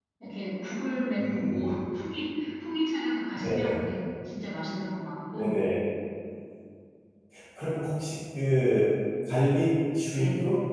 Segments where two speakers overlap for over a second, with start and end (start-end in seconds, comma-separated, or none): none